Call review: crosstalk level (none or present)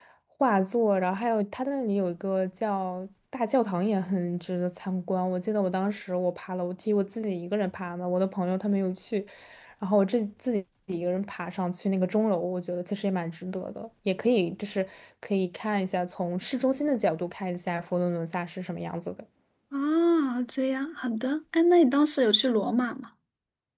none